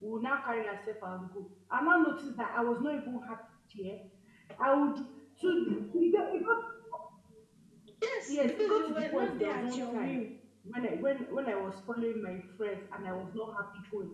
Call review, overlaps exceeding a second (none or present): present